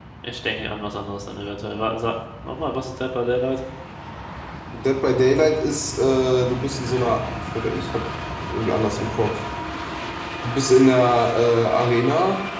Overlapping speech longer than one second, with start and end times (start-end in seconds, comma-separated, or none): none